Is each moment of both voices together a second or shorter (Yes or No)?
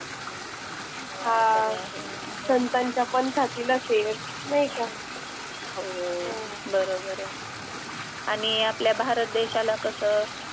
Yes